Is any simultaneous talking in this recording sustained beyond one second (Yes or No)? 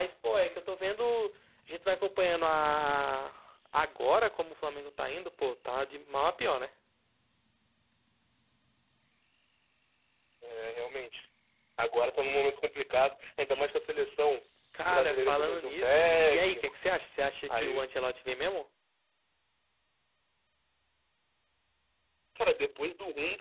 Yes